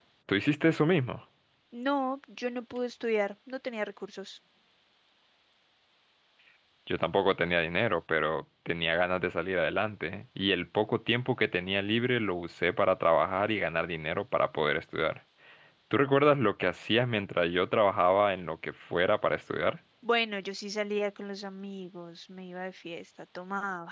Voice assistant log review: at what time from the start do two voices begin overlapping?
none

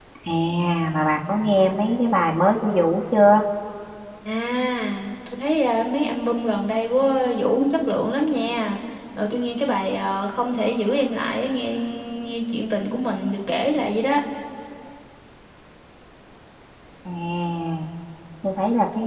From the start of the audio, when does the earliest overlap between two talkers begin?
none

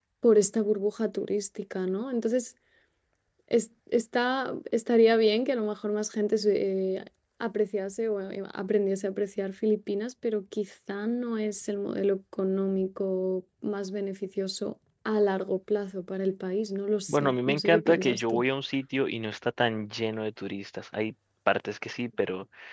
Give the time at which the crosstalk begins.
17 s

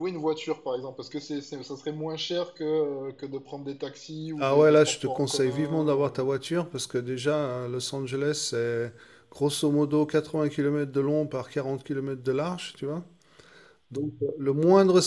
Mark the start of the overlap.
4 s

